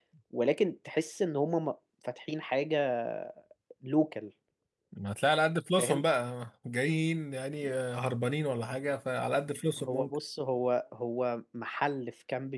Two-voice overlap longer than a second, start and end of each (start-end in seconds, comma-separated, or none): none